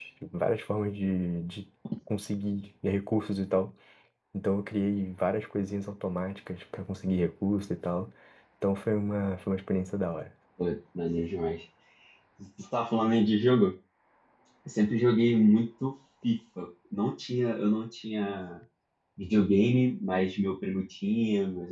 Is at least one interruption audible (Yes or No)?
No